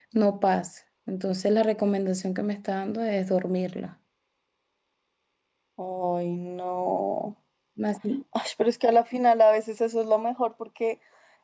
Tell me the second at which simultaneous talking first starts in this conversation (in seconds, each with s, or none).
none